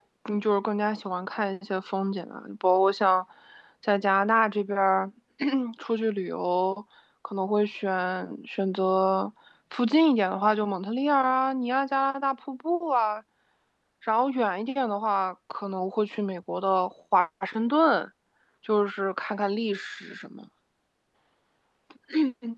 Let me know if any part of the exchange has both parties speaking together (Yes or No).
No